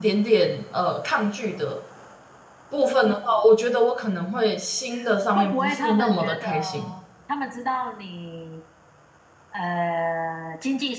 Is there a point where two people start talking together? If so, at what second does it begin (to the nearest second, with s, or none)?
5 s